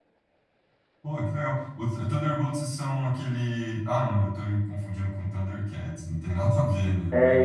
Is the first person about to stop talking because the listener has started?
Yes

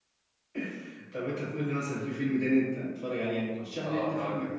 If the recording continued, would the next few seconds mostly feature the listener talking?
Yes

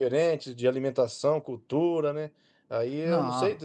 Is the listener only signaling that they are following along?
Yes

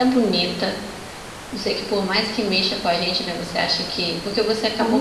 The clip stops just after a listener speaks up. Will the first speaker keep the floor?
Yes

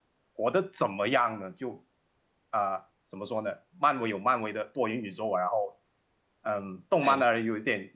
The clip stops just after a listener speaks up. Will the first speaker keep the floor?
Yes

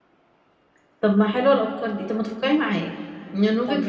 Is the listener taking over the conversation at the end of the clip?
No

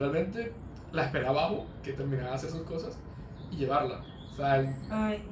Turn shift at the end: Yes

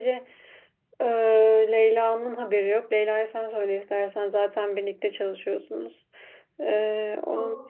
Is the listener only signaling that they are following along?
Yes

